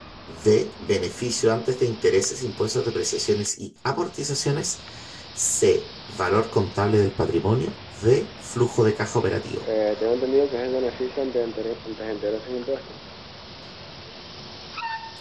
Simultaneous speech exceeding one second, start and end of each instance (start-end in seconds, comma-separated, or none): none